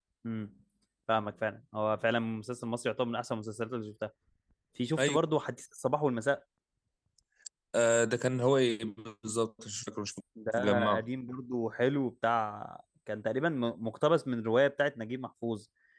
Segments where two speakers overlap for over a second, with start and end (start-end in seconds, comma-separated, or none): none